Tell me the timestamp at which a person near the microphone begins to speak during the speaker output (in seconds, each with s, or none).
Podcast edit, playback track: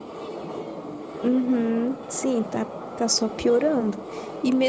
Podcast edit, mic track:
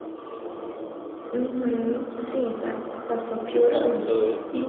3.6 s